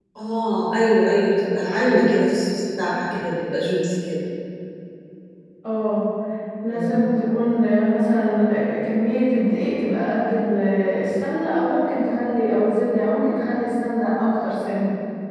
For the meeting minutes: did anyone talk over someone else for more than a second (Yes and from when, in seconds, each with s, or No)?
No